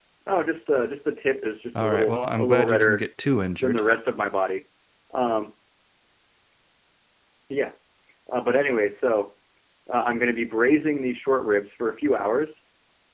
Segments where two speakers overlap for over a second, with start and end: 1.8-3.0

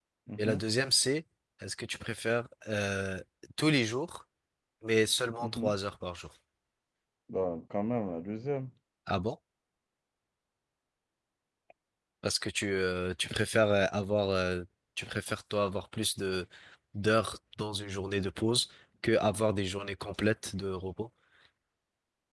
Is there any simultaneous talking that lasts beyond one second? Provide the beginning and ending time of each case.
none

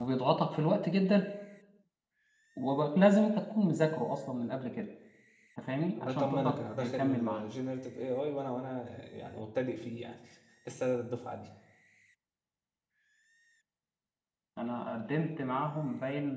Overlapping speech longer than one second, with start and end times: 6.0-7.5

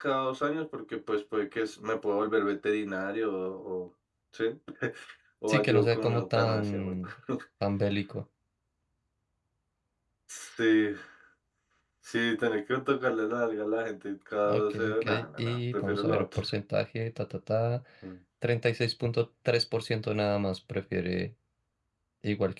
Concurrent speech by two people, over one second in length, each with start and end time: 5.5-7.1, 14.5-16.2

